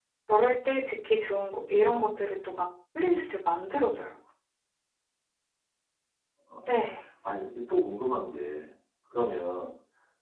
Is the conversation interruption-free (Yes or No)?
Yes